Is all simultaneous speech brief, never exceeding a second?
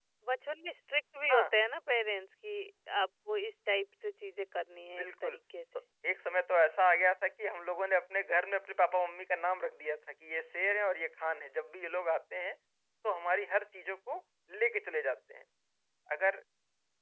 Yes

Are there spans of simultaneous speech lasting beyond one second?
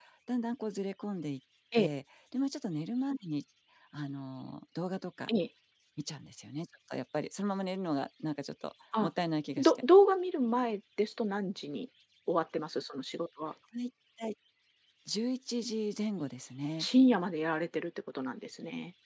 No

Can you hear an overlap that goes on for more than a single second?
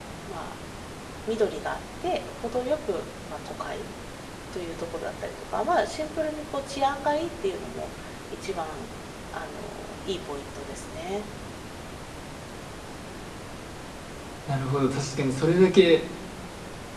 No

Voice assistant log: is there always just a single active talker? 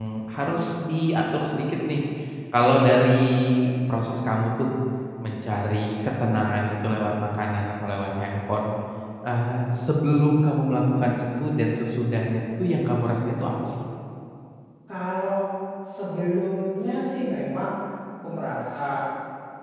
Yes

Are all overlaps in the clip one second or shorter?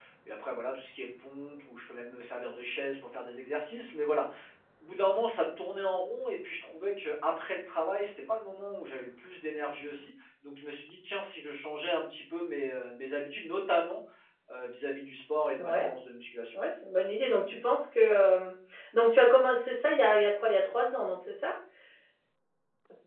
Yes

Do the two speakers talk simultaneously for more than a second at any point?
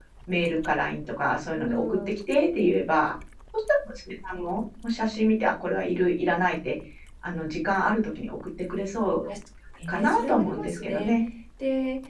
Yes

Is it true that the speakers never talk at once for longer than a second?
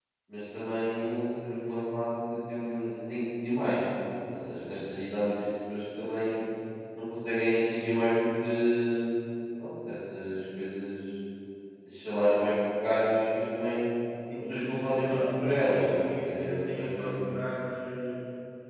No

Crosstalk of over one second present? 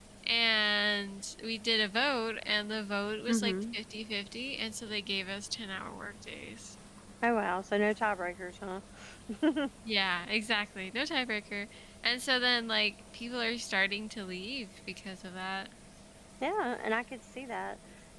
No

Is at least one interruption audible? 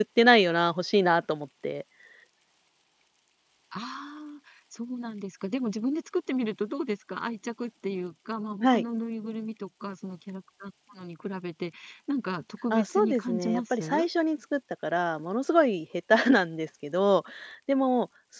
Yes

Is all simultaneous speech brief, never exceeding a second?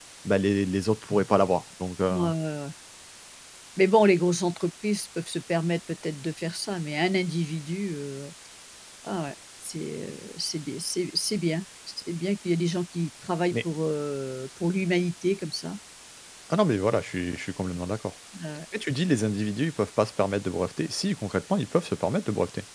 Yes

